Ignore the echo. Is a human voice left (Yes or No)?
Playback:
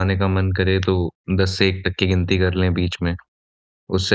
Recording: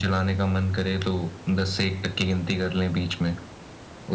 No